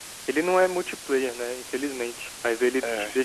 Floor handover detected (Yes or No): No